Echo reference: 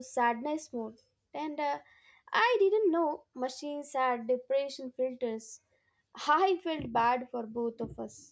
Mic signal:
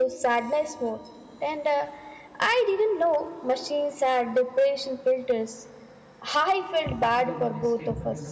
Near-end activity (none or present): present